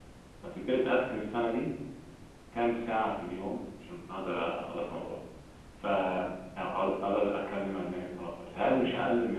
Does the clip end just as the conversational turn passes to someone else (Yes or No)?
No